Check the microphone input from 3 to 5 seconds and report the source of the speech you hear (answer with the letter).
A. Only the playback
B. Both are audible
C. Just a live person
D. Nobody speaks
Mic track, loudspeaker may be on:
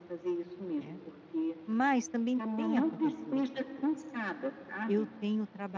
B